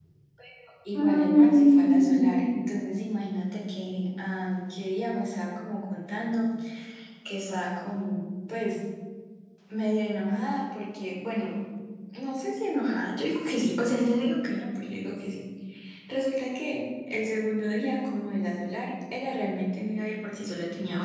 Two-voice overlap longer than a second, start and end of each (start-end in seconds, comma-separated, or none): 0.9-2.5